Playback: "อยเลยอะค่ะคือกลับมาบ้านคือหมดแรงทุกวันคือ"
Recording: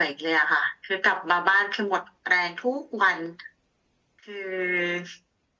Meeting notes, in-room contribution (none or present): none